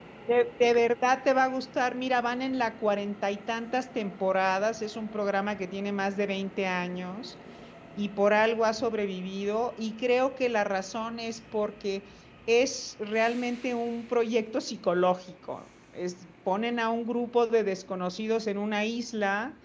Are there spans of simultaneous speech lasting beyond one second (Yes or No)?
No